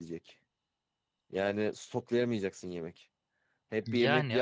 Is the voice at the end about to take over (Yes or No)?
No